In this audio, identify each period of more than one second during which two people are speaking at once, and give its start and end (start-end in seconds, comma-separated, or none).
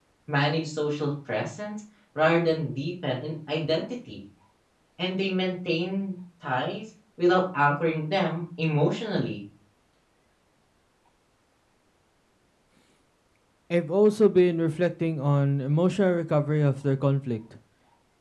none